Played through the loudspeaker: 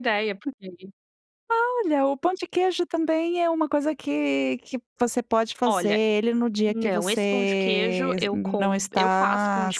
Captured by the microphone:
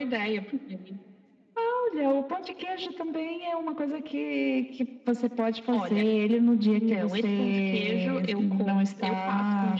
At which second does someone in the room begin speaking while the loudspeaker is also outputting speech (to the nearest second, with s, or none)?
none